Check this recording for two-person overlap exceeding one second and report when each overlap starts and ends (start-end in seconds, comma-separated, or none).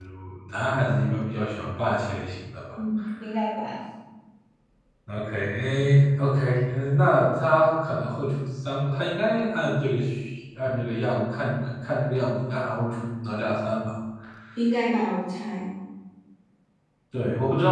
none